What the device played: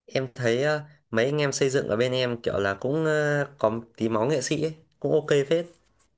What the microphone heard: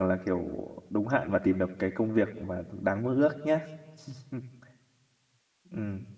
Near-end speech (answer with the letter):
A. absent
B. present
B